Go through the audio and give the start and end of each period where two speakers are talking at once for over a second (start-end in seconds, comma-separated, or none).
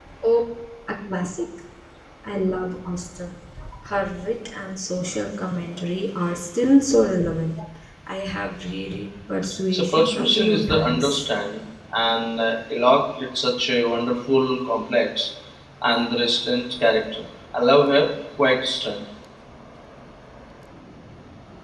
9.7-11.3